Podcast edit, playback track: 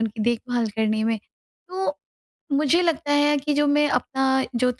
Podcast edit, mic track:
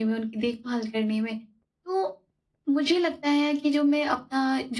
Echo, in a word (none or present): present